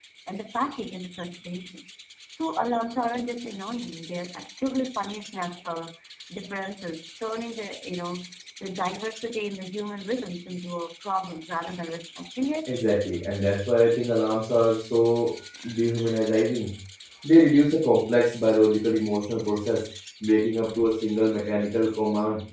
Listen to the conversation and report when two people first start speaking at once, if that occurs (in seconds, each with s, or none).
none